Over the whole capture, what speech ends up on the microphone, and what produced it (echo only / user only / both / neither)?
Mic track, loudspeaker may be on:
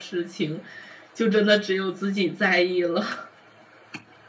echo only